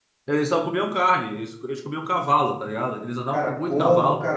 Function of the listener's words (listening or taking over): taking over